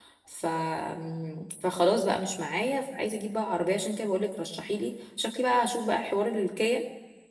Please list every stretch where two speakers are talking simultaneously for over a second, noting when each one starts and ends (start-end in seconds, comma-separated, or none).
none